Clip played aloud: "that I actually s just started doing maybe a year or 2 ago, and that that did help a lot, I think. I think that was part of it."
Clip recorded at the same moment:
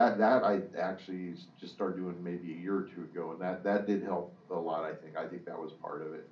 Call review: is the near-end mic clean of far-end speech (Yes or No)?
No